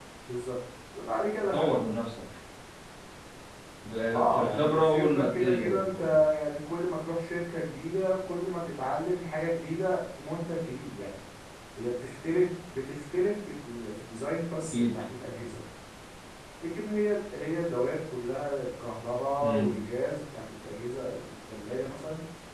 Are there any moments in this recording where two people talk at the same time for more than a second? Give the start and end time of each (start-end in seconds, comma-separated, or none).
4.1-6.0